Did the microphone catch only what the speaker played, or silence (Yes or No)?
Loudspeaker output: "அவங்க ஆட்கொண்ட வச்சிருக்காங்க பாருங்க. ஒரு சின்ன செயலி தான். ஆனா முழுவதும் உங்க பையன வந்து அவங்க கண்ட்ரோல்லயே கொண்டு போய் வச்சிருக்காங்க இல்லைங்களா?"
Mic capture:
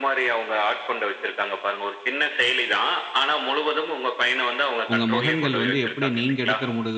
No